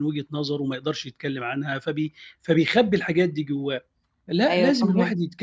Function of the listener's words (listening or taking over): listening